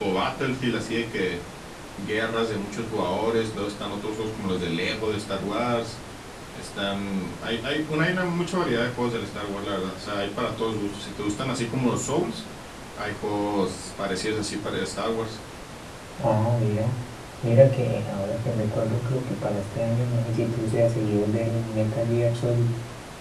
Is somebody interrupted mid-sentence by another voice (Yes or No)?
No